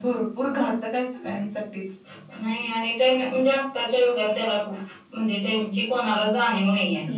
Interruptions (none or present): none